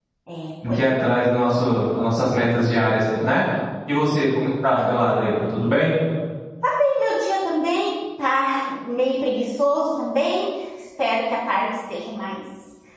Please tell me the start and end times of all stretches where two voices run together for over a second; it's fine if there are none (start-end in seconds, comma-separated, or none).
none